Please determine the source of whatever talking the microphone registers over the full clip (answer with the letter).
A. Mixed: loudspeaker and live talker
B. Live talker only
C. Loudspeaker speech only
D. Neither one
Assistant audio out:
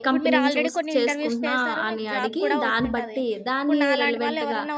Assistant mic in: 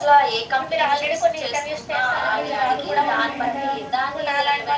A